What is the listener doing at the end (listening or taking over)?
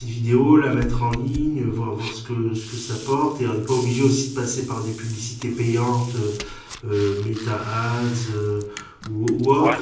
taking over